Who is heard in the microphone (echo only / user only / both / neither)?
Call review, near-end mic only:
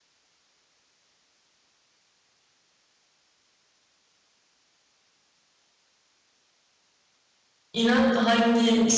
user only